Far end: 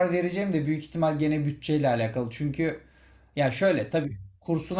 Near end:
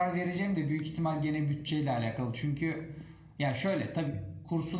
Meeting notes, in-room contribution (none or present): none